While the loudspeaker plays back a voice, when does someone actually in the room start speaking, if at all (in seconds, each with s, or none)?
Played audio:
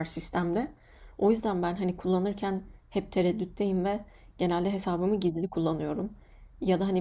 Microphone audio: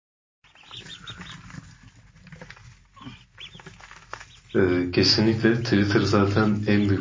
4.5 s